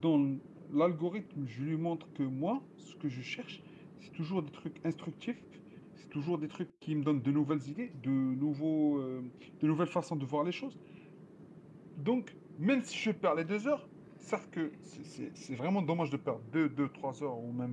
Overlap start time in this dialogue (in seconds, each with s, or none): none